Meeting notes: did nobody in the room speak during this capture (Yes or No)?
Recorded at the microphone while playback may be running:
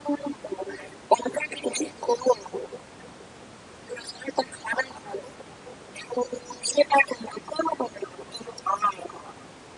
Yes